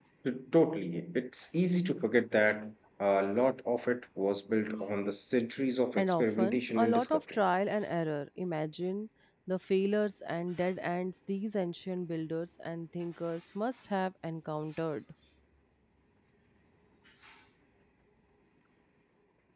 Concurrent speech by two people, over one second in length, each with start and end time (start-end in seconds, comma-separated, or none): 6.0-7.4